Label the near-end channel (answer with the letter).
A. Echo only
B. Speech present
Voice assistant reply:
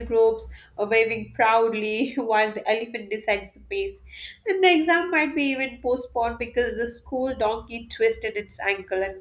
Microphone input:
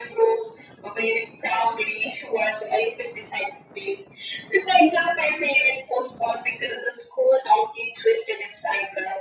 A